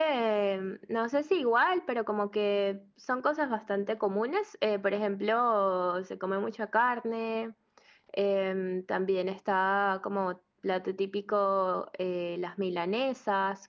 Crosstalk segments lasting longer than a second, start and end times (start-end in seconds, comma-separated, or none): none